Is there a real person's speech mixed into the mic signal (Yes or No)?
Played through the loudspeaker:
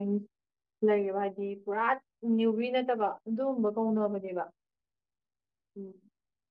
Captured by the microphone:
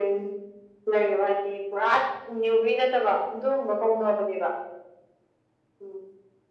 No